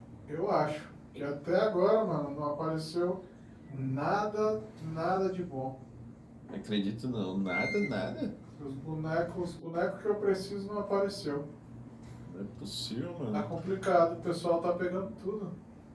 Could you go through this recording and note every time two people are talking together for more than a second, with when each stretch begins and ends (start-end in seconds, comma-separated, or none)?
none